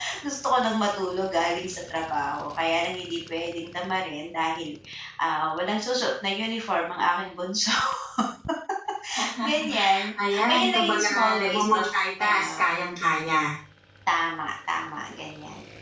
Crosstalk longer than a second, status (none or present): present